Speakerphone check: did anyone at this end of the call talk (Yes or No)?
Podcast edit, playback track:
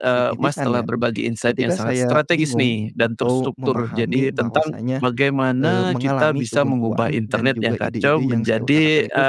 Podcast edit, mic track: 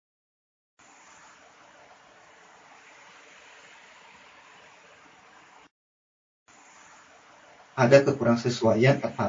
Yes